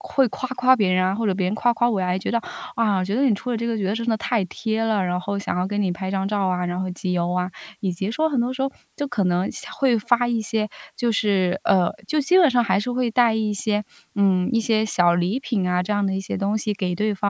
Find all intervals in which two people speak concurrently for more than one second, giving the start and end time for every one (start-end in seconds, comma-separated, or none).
none